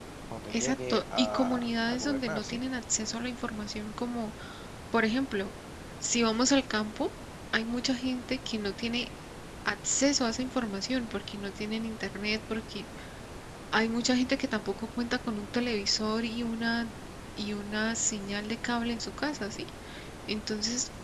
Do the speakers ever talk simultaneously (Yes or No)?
Yes